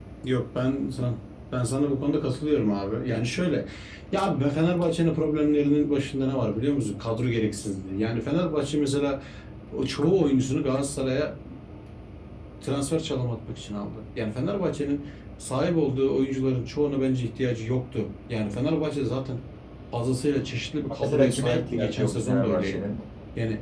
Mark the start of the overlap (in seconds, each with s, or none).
21.0 s